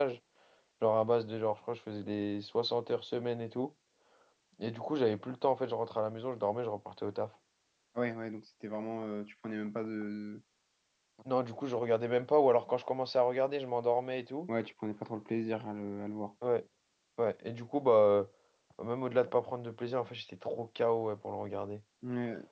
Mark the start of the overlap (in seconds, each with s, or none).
none